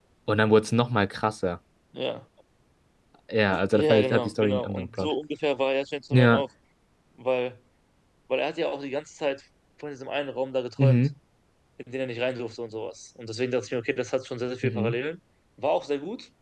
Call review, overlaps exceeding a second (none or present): present